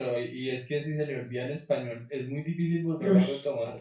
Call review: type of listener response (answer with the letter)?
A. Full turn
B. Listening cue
B